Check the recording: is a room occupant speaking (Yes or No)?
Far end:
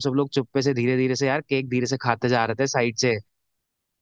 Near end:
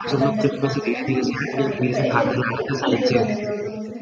Yes